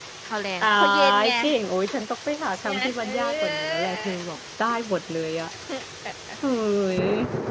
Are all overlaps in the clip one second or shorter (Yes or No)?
No